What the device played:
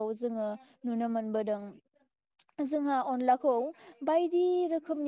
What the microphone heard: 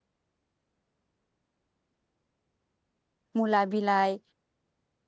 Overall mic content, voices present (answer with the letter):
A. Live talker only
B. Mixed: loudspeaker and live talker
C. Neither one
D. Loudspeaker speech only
A